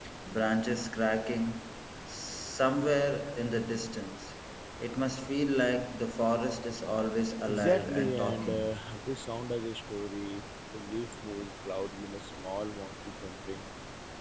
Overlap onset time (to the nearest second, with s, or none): 7 s